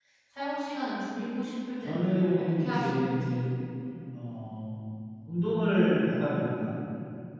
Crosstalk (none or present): present